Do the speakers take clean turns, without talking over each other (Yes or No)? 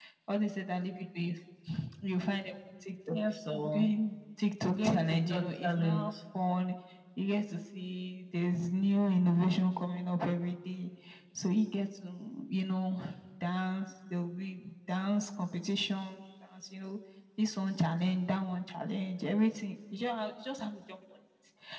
No